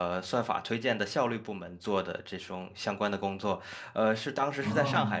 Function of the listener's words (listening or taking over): listening